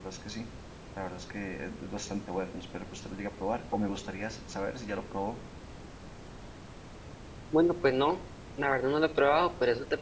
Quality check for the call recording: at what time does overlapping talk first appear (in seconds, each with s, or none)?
none